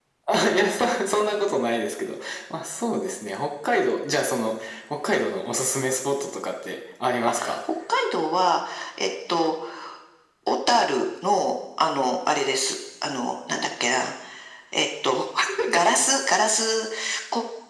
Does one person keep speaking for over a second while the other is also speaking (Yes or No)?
No